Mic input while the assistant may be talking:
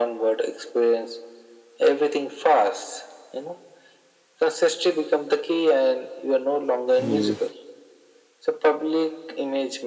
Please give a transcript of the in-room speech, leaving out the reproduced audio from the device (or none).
mm,